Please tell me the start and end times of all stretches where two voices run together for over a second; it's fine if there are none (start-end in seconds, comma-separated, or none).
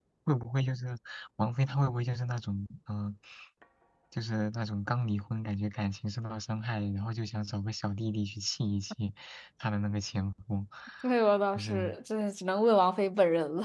none